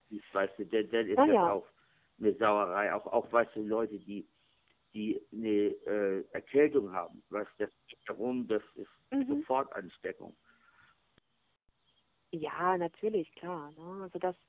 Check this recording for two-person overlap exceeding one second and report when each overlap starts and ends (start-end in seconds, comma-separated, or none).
none